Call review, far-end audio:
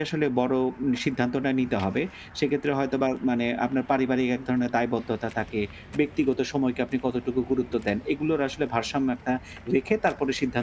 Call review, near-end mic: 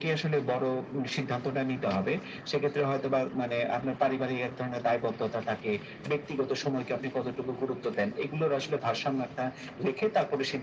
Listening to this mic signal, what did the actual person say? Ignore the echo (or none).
none